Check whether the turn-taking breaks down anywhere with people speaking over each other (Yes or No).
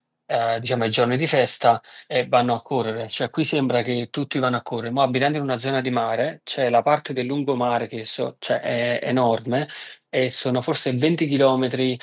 No